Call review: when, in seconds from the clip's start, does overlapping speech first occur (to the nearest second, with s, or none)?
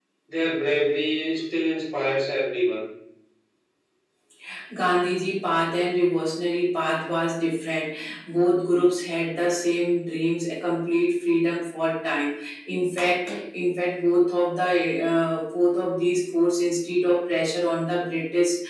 none